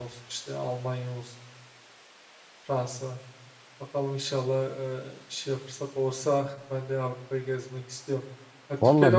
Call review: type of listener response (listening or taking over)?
listening